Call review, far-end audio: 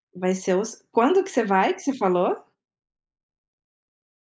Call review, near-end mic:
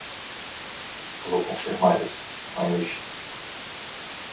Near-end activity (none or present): present